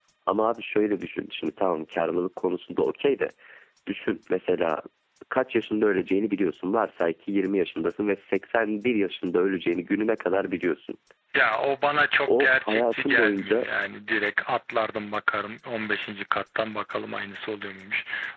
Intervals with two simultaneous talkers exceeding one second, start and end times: 12.3-13.6

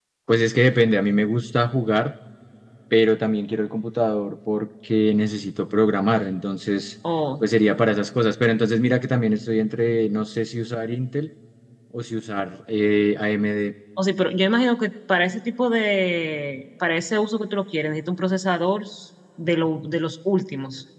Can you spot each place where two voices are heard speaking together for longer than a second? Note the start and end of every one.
none

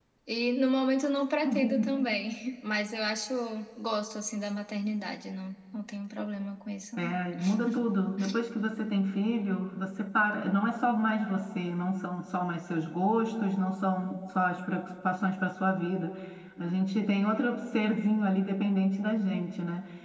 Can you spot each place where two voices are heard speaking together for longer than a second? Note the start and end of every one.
none

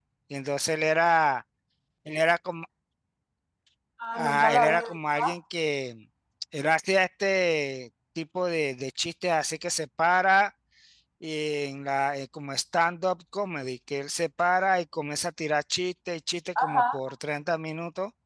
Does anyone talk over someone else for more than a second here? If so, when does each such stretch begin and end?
4.1-5.4

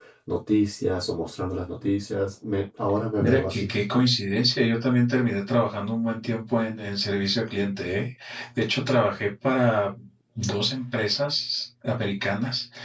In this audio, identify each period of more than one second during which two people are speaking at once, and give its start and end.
none

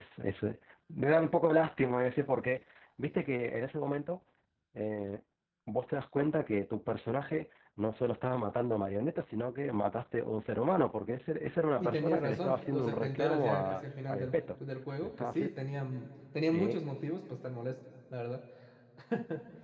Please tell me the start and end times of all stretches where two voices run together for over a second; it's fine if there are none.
11.8-14.3

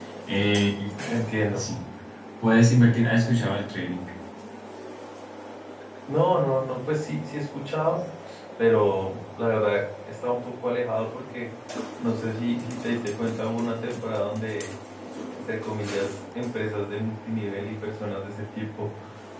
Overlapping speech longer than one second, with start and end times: none

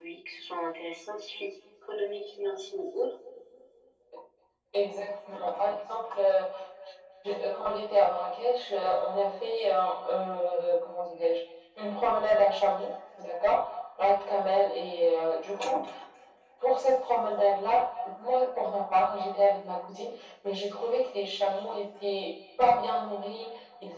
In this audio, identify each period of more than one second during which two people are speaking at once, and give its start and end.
none

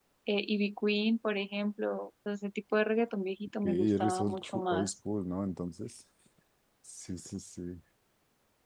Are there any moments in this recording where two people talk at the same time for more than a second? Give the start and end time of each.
3.6-4.9

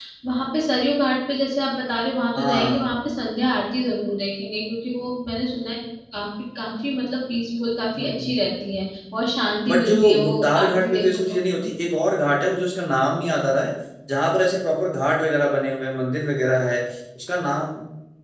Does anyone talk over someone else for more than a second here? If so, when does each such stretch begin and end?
9.7-11.4

